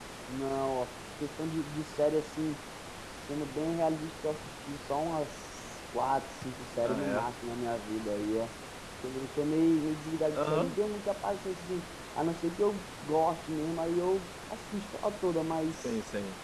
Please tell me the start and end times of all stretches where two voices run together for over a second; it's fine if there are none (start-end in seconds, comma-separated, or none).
none